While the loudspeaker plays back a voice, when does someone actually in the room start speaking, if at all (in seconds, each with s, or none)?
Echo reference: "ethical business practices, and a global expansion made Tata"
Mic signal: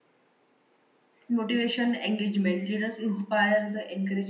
1.3 s